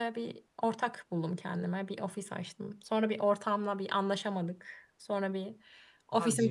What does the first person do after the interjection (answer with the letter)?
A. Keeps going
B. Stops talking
A